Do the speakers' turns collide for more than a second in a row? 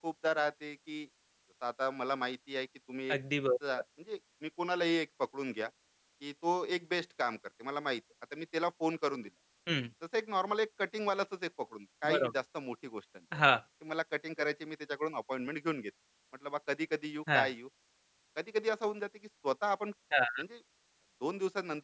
No

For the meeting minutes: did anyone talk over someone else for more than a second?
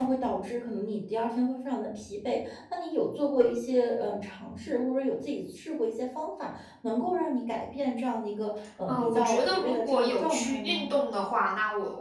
Yes, from 8.9 s

